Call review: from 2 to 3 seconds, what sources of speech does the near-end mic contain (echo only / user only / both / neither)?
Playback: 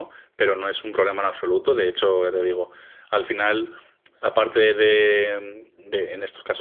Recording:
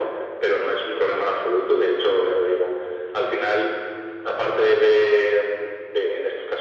echo only